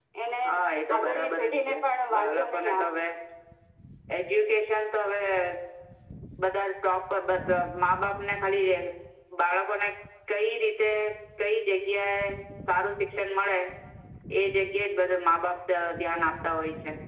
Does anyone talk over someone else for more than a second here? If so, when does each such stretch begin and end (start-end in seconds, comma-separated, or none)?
1.0-2.9